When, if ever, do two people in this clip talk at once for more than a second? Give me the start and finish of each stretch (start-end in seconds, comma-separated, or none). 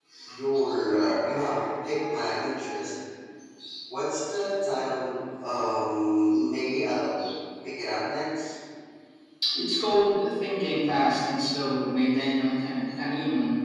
none